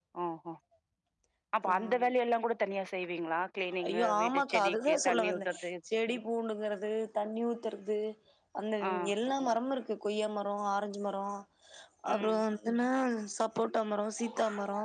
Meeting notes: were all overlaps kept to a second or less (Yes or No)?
No